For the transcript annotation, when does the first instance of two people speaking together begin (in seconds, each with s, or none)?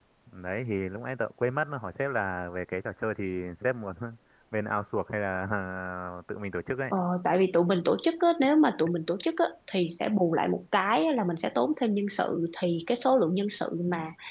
none